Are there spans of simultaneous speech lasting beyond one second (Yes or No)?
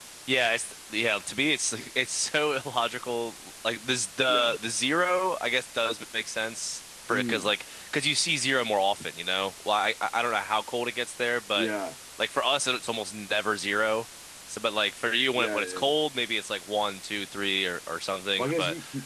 No